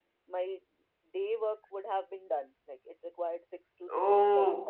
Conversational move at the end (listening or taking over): taking over